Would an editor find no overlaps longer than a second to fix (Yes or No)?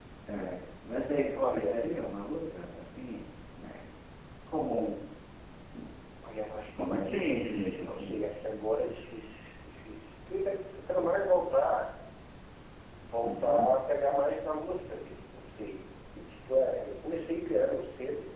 No